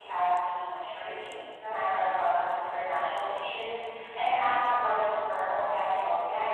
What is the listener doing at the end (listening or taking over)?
taking over